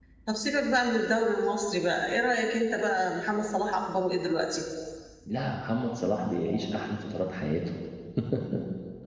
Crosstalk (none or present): none